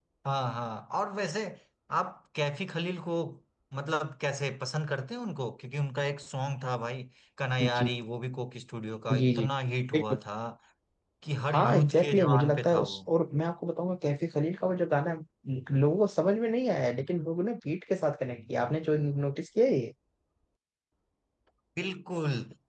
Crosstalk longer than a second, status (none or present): present